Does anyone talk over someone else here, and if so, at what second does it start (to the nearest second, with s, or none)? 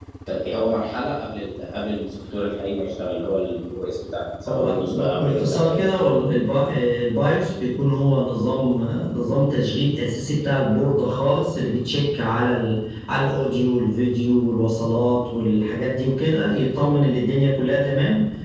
4 s